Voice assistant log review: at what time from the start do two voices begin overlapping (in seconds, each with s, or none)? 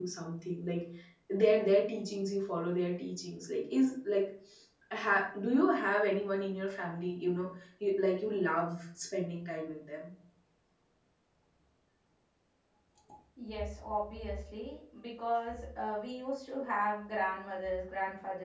none